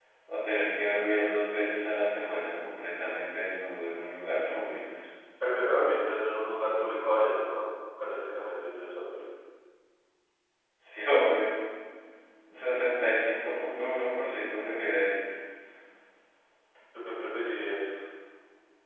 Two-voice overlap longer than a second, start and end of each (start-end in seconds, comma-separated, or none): none